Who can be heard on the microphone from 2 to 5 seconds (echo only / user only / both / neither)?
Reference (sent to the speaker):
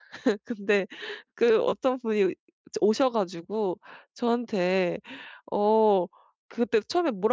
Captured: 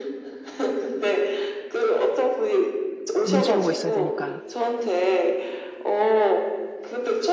both